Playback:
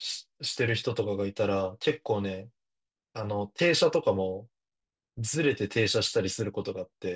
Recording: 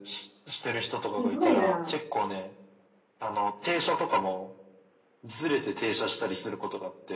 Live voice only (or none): すごいな。